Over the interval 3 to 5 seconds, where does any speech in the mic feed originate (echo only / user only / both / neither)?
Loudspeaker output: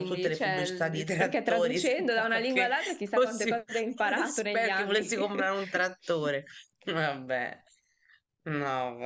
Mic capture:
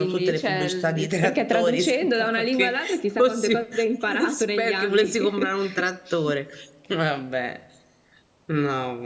echo only